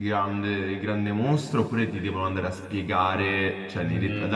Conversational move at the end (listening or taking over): listening